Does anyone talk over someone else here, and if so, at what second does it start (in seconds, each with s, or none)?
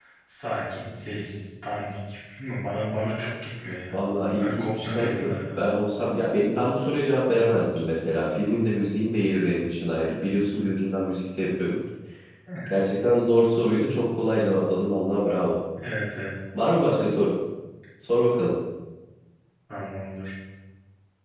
4.4 s